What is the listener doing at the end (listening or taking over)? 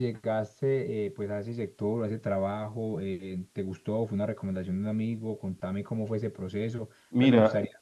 taking over